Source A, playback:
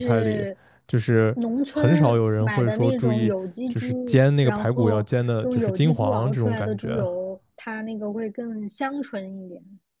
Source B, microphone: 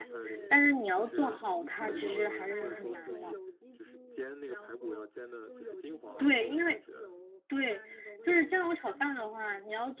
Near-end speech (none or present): present